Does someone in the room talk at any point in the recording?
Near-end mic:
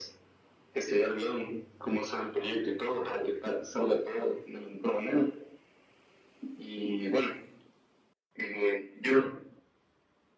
No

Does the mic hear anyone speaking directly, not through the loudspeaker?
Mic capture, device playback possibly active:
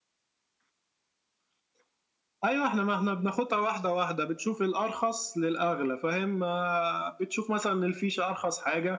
No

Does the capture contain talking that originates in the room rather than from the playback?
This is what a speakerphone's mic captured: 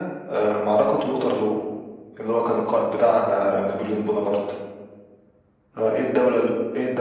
No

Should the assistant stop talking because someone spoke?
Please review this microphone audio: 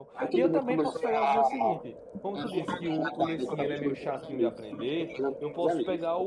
Yes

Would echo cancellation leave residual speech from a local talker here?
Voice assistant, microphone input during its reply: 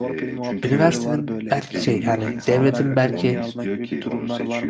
Yes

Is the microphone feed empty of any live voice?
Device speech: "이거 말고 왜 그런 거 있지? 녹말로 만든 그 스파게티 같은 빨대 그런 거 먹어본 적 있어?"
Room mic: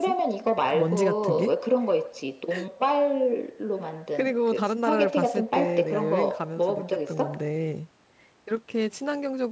No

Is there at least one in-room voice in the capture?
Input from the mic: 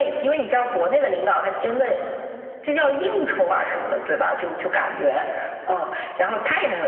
No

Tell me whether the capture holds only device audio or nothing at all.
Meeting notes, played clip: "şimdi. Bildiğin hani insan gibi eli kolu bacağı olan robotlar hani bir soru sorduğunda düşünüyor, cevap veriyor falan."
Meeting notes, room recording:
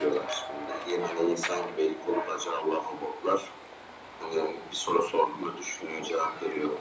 Yes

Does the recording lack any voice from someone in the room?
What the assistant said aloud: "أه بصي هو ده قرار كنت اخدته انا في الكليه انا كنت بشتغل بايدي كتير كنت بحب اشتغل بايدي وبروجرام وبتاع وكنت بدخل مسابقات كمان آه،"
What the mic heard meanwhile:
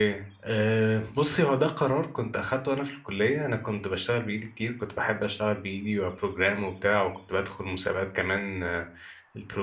Yes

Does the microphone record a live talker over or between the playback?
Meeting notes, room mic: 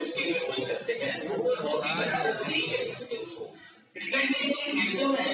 Yes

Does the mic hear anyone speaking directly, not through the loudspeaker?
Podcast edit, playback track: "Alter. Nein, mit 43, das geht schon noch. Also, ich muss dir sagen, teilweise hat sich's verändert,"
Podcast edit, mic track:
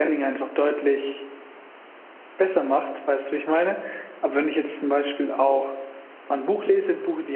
Yes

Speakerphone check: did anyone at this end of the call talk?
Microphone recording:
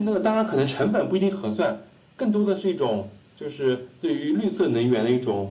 No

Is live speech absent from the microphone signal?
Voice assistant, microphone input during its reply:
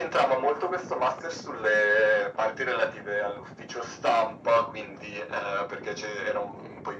Yes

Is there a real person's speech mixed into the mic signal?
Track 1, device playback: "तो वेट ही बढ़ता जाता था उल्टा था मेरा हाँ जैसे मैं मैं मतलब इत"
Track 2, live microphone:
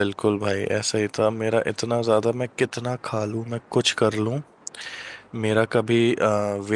Yes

